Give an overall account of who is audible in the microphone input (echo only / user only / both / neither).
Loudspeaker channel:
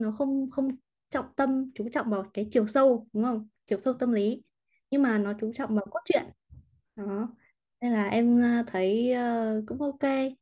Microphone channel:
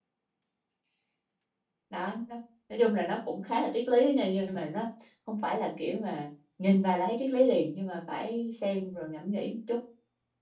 user only